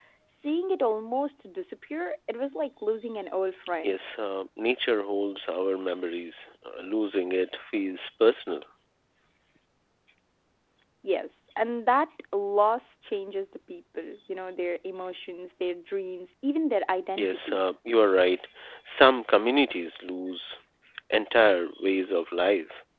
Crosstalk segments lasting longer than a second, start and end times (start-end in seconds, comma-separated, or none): none